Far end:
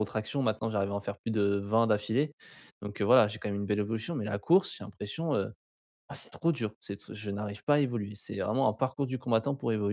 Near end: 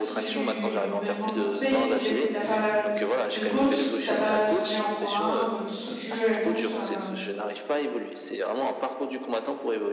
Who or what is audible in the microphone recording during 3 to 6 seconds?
both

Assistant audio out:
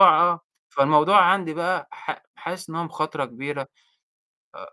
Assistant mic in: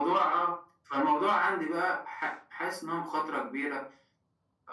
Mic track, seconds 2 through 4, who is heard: echo only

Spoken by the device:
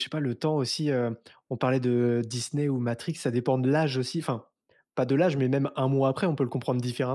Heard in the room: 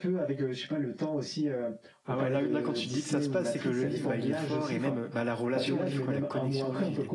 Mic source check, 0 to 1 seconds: echo only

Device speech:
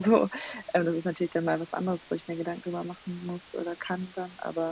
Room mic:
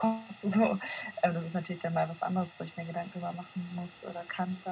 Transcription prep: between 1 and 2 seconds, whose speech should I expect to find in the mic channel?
echo only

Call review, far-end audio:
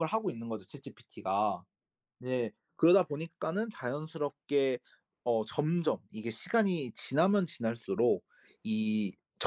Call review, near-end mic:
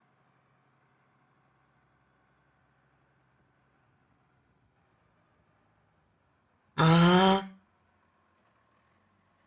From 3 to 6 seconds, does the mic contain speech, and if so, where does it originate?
neither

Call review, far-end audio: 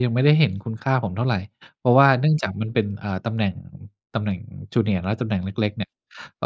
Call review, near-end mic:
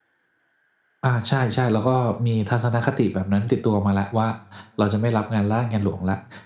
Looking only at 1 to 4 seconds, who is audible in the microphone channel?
user only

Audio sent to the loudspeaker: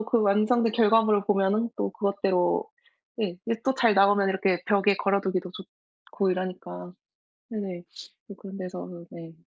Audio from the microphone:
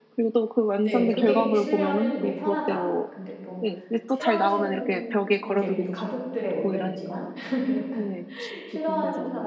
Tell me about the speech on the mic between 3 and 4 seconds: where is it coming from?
both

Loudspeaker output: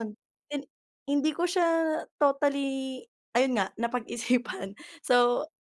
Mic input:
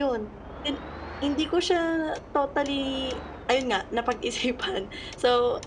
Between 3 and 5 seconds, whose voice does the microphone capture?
echo only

